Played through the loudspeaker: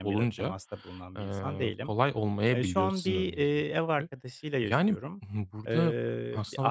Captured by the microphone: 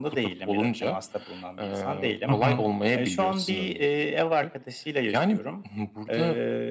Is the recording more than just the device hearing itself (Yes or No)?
Yes